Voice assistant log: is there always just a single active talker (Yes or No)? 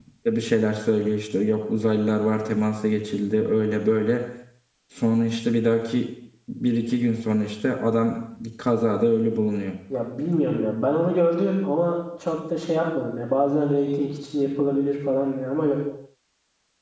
Yes